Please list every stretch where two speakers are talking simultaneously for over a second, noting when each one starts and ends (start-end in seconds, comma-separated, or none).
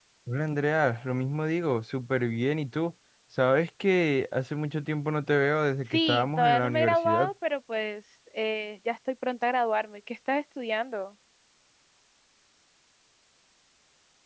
5.9-7.3